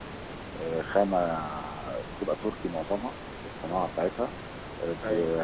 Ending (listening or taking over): listening